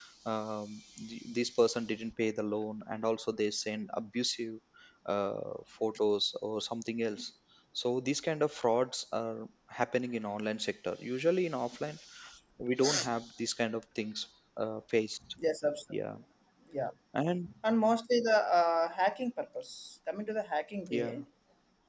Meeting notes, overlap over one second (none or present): none